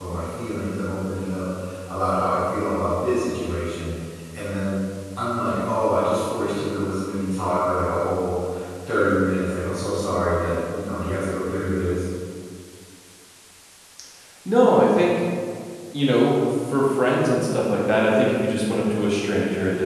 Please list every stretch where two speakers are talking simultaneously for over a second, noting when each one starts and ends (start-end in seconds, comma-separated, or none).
none